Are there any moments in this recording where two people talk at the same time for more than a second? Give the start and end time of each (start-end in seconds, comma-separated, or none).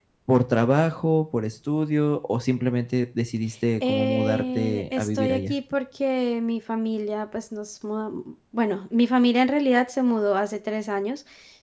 3.8-5.5